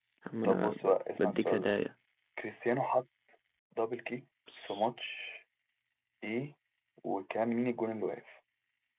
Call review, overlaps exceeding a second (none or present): present